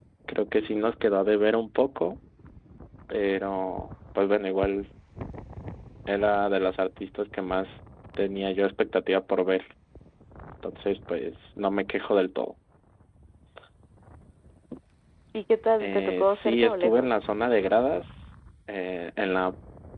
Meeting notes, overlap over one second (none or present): present